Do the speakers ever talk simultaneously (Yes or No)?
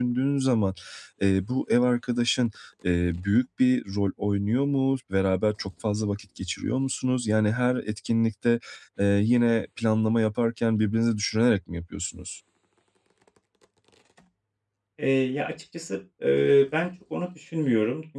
No